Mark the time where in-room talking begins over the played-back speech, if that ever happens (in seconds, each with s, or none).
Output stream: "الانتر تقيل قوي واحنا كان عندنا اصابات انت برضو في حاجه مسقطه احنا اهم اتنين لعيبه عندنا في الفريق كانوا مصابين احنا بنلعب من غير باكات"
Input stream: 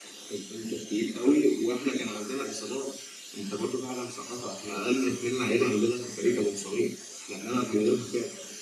none